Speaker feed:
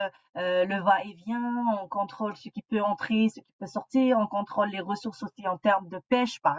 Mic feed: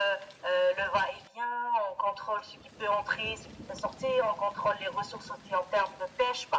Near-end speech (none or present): none